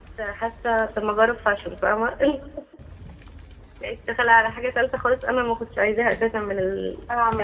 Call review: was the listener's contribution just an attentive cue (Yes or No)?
No